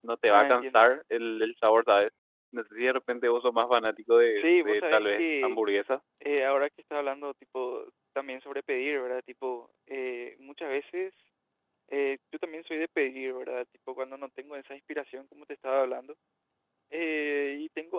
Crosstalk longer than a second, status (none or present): present